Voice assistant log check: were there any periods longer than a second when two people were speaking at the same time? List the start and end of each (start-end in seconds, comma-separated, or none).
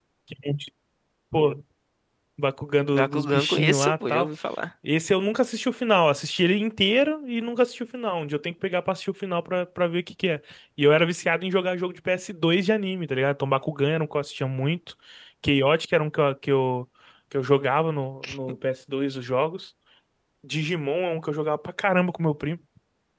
2.9-4.3